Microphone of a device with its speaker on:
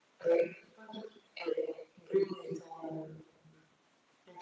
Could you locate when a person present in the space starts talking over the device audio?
none

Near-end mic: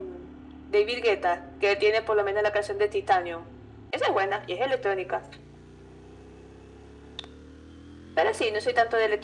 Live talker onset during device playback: none

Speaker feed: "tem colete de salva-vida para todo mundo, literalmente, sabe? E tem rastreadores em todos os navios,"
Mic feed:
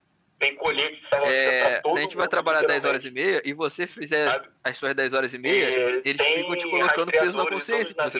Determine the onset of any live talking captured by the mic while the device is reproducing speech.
1.2 s

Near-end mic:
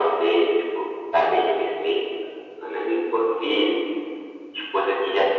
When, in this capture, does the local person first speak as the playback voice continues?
none

